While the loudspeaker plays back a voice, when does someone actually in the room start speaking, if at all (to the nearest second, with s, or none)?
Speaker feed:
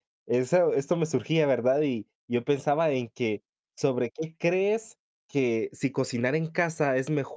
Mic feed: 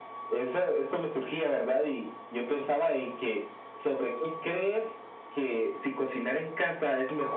none